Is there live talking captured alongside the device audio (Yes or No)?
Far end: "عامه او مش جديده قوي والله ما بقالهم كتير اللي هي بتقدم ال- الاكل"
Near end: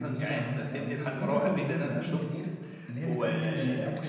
Yes